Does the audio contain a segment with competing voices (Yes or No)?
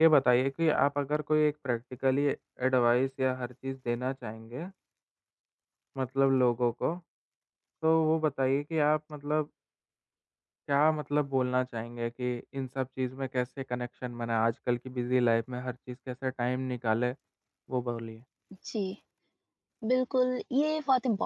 No